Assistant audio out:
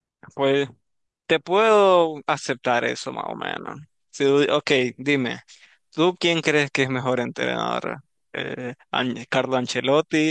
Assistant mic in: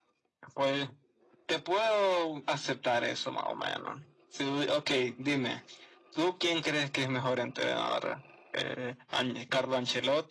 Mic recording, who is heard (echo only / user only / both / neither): echo only